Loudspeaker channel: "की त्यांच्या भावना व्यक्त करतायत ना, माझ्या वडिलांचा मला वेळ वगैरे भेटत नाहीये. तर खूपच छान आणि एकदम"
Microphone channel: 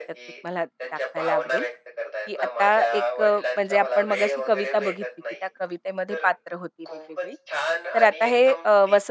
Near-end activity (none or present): present